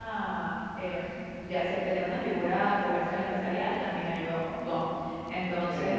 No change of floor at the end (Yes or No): Yes